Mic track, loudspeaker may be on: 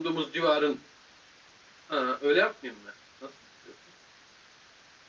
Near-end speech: none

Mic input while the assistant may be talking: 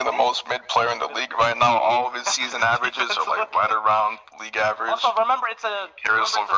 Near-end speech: none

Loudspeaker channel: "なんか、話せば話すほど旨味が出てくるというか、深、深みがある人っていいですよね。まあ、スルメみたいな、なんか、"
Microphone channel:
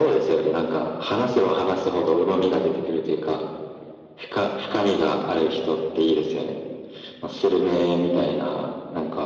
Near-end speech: none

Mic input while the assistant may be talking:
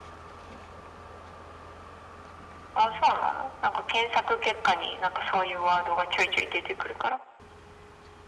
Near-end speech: none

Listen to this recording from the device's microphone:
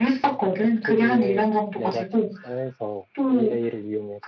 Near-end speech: present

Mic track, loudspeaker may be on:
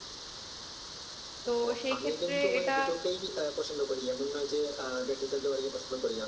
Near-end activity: present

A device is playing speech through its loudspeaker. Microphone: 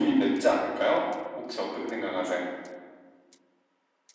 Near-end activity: none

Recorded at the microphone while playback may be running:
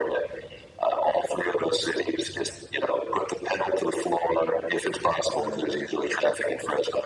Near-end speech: present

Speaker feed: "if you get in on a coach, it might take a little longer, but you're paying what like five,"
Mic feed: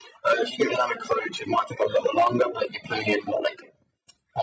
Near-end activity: none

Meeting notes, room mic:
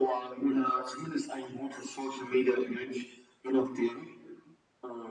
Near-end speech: none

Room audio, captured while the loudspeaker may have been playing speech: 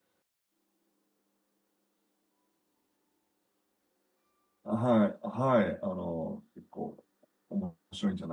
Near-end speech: present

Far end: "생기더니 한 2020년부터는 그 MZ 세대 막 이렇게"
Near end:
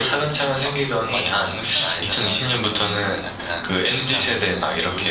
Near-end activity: present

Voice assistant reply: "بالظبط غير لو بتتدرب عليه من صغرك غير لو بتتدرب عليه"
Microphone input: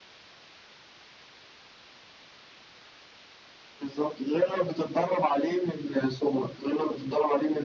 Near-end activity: none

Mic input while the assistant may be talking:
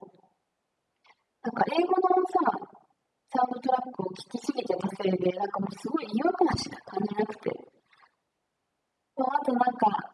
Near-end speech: none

